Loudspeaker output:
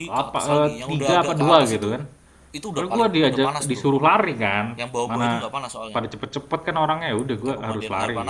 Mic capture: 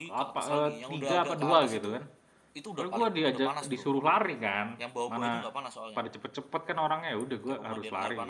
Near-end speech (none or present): none